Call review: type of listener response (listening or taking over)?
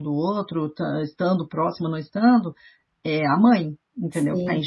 taking over